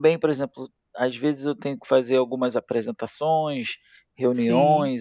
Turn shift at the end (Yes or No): No